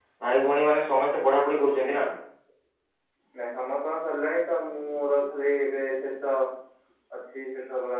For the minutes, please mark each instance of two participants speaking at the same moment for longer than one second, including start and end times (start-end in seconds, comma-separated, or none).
none